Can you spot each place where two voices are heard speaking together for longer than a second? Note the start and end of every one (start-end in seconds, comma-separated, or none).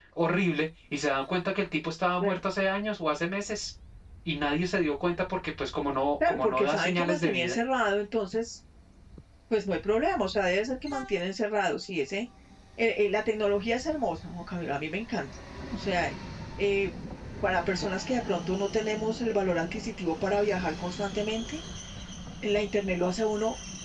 6.3-7.6